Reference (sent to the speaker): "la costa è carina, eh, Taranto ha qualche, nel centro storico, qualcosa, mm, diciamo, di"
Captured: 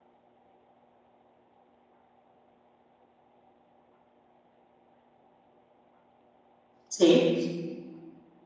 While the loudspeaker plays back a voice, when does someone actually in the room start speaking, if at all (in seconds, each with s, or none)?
6.9 s